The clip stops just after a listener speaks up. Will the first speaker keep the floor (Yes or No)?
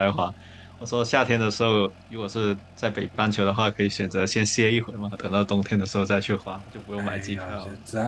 No